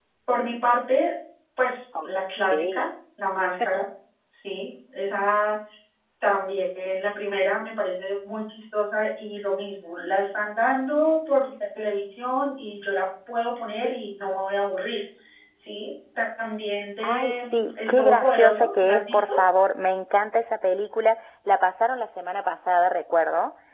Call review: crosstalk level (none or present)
present